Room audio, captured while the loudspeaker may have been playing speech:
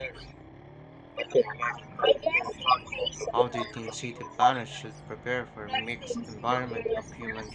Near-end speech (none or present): present